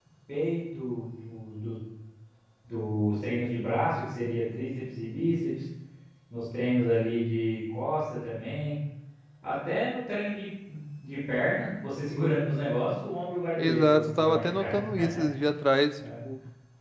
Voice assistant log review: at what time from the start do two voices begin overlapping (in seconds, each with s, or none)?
13.6 s